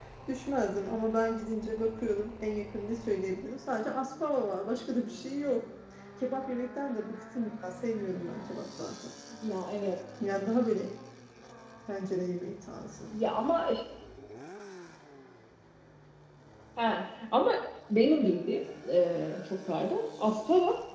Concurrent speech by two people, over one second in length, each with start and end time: none

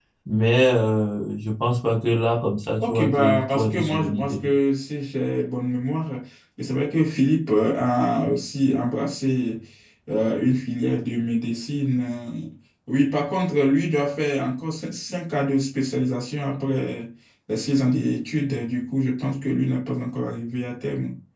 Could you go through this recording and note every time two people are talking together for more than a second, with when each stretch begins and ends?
2.8-4.5

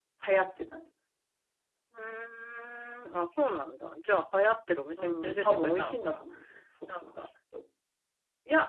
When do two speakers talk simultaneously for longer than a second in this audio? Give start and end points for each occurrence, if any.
5.0-6.2

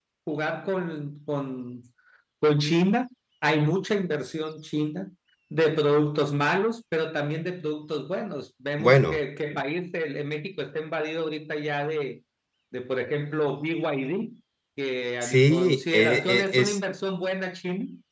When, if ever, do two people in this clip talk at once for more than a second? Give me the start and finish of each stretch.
15.2-16.8

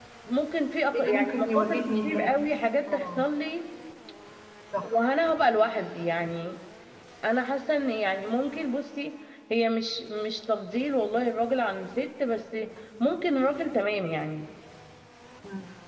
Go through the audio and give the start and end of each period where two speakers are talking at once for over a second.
0.9-2.3

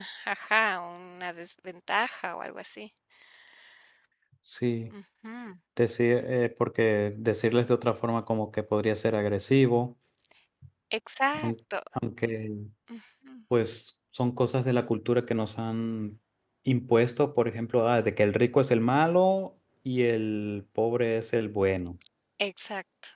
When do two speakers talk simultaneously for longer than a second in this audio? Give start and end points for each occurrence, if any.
none

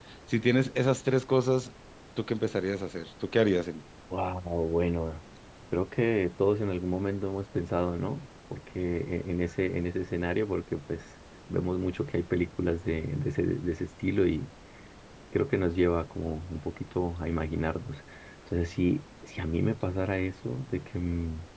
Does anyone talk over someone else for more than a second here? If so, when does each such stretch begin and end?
none

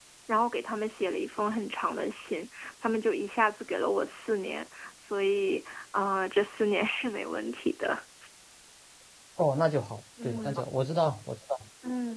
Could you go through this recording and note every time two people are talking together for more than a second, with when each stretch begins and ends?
none

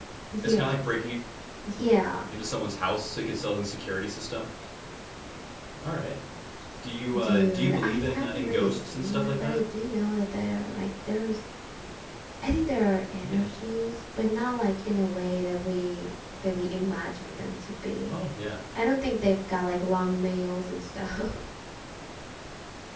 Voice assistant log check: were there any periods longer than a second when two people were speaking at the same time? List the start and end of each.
7.2-9.6

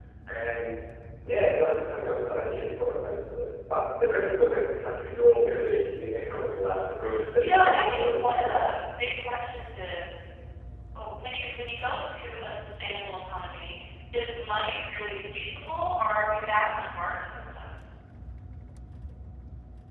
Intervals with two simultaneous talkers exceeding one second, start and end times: 7.4-8.7

